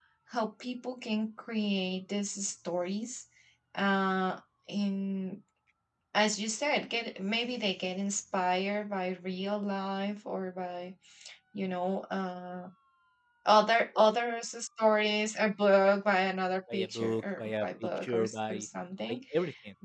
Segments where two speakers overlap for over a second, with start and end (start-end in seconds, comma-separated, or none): 16.7-18.6